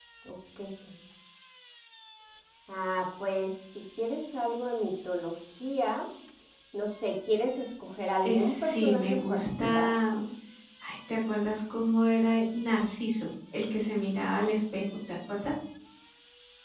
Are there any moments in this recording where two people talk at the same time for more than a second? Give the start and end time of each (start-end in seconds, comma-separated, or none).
8.2-9.9